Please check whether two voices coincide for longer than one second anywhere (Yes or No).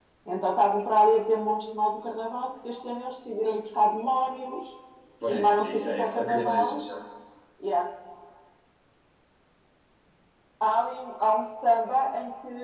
Yes